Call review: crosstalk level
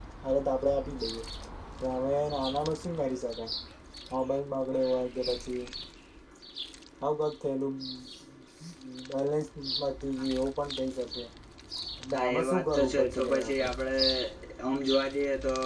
present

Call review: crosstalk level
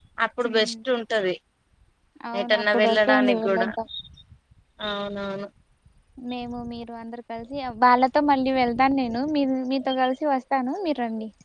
present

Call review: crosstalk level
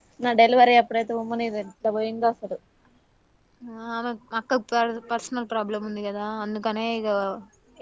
none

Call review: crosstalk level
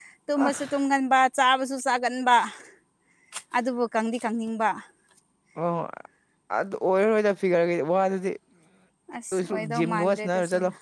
present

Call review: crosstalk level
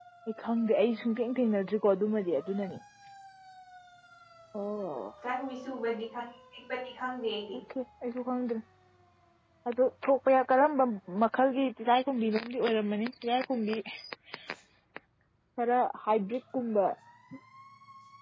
none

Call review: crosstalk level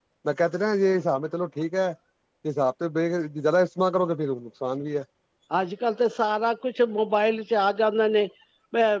none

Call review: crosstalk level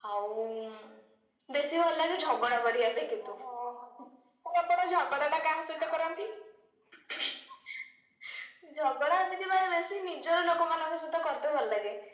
none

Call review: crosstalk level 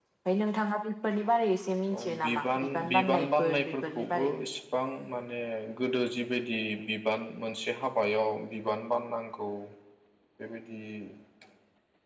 present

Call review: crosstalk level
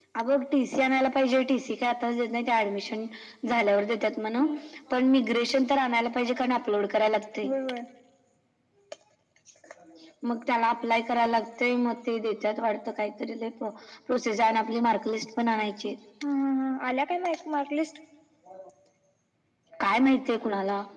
none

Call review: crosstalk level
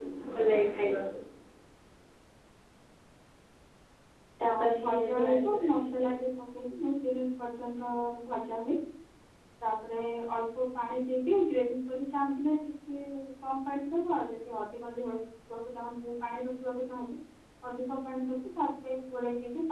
present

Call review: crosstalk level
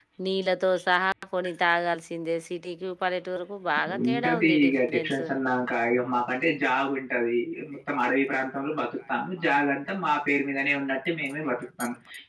present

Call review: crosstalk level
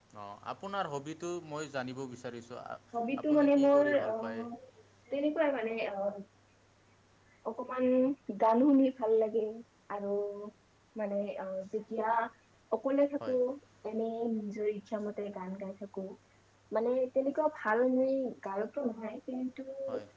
present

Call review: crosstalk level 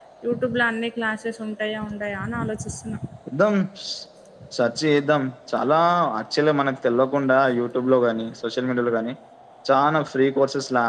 none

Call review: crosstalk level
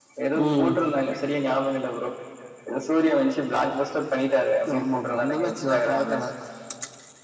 present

